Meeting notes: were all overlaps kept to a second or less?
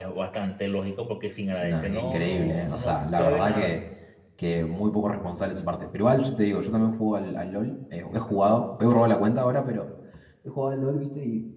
No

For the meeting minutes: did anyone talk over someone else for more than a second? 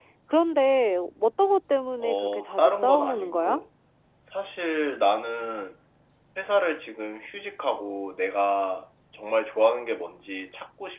Yes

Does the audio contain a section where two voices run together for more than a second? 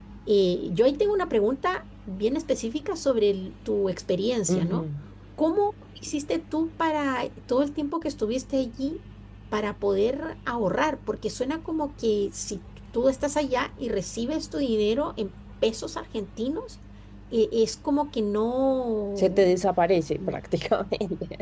No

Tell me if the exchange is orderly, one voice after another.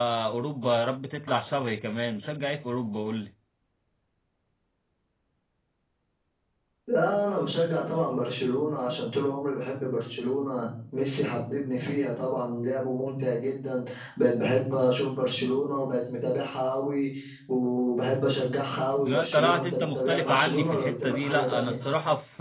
No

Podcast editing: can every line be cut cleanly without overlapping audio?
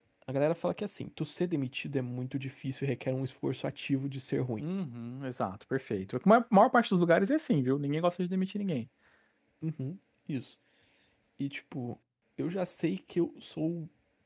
Yes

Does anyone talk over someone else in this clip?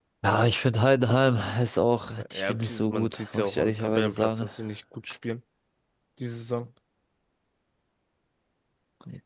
Yes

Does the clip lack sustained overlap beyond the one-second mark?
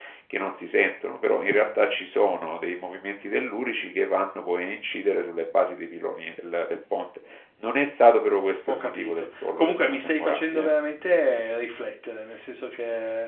No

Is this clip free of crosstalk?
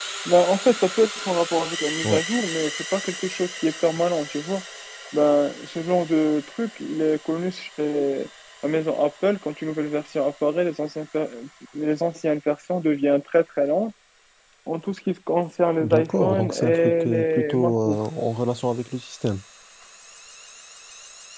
No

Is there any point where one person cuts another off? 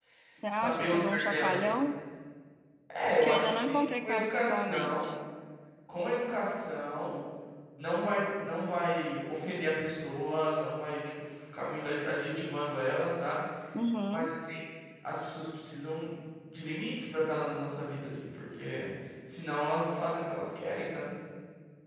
Yes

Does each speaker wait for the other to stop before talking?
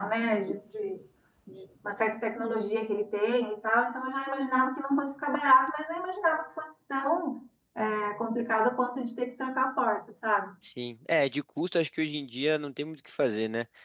Yes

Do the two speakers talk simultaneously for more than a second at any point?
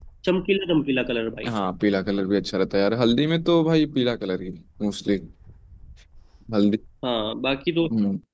No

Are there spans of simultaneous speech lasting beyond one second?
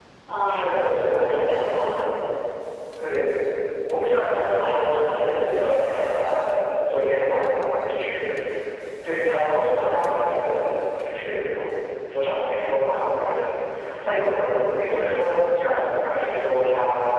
Yes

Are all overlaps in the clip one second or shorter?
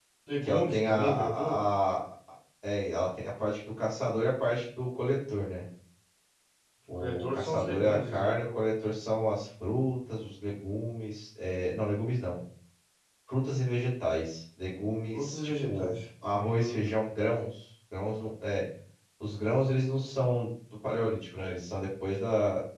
No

